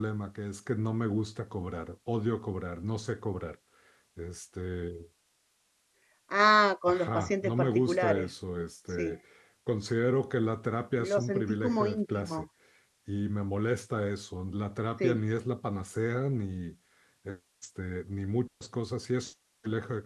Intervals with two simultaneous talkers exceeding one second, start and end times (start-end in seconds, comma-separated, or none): 6.9-8.3, 11.1-12.4